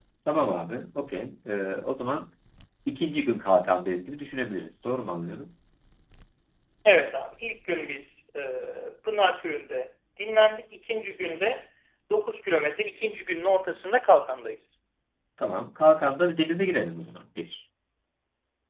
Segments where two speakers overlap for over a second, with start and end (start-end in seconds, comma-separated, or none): none